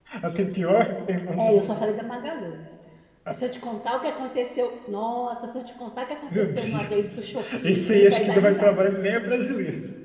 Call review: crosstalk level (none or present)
present